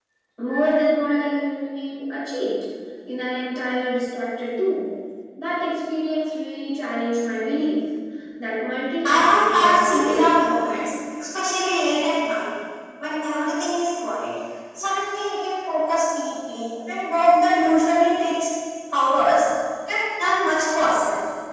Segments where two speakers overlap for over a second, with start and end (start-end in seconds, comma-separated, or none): 9.1-10.4